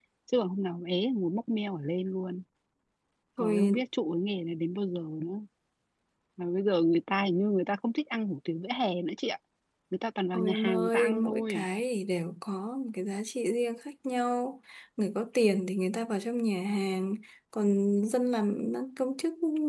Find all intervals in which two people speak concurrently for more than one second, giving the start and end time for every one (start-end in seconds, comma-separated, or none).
10.4-11.7